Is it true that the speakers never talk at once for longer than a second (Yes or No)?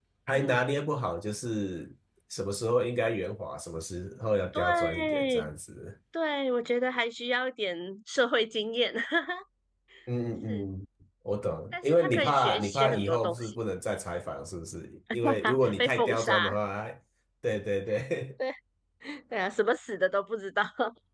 No